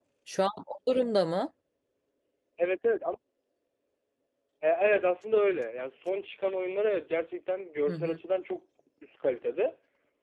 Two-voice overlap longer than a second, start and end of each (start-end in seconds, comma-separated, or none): none